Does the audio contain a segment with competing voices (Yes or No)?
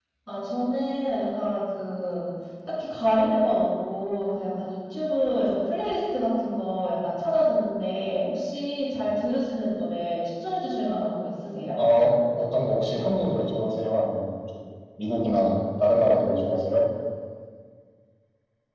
No